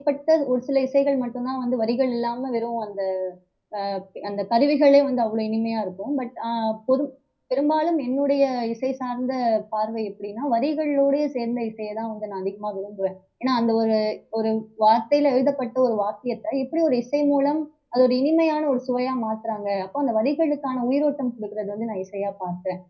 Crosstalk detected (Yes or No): No